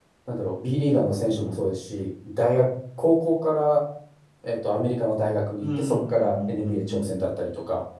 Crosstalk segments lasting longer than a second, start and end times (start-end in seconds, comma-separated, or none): 5.6-7.2